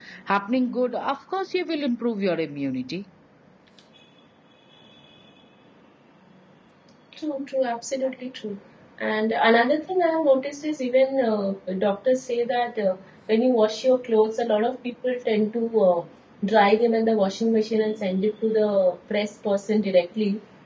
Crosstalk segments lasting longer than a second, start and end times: none

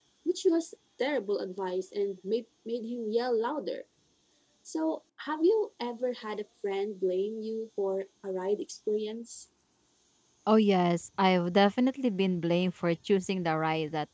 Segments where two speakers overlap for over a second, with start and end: none

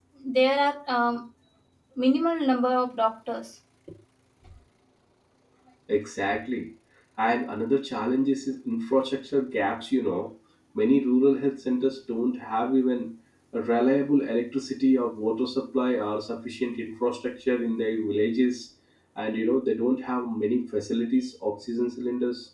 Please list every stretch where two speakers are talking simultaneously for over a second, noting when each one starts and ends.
none

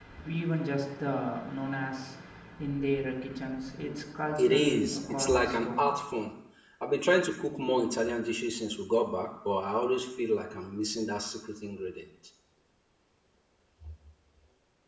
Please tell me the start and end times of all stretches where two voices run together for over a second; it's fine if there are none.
4.4-5.9

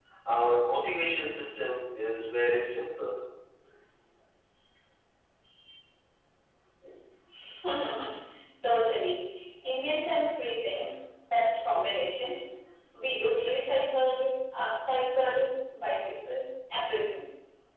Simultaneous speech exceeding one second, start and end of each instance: none

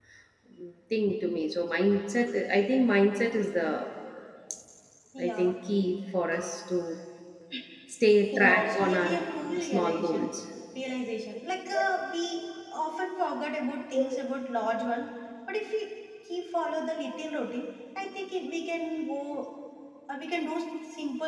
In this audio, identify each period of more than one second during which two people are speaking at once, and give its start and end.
8.5-10.3

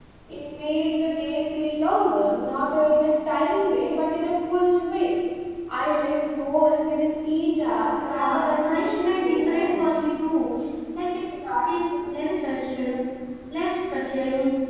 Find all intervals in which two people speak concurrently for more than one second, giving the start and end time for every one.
8.1-9.8

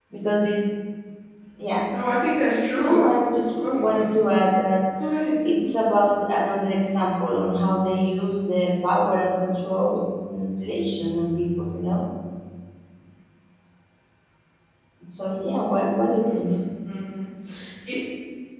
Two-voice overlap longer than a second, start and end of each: none

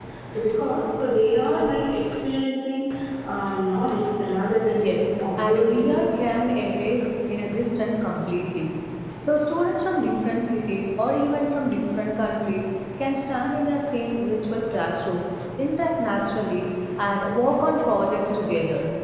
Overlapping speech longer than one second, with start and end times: 4.7-5.9

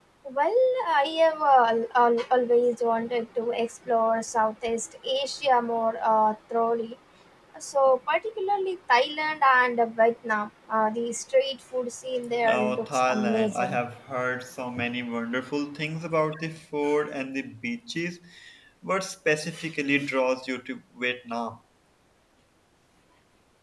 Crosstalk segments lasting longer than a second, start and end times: 12.4-13.8

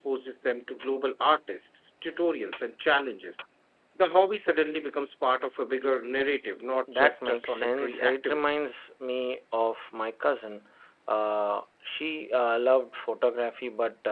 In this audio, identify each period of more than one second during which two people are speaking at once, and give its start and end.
6.9-8.4

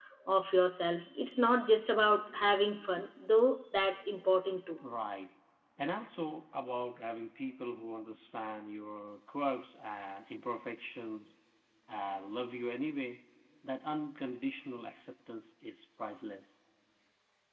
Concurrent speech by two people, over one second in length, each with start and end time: none

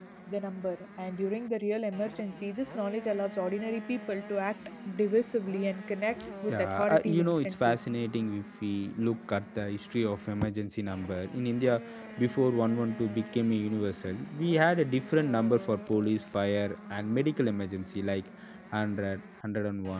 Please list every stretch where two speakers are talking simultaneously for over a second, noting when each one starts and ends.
6.5-7.8

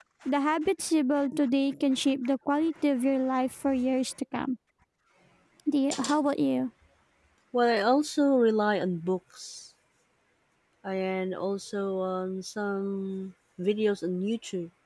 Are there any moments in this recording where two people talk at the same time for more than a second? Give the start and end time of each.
none

